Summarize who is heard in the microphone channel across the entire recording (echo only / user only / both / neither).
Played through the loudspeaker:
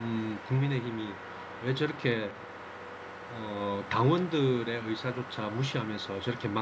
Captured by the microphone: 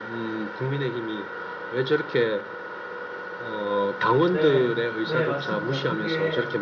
both